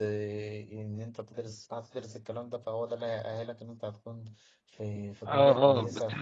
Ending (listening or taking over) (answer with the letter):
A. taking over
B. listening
A